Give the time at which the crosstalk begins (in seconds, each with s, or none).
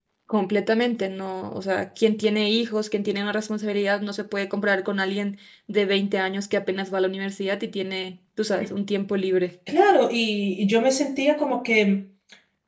none